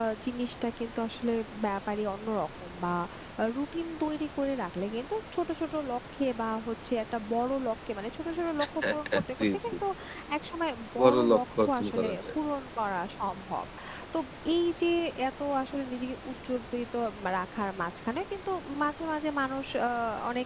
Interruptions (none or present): present